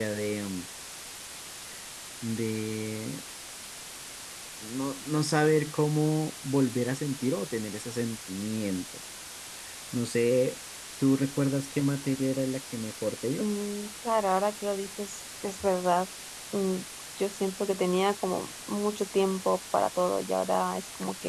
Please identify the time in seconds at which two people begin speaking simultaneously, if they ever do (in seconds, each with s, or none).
none